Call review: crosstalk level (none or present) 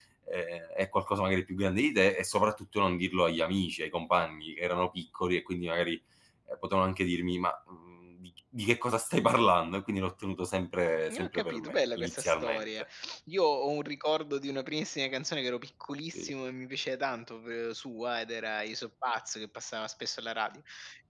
present